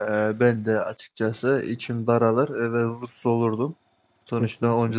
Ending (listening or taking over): listening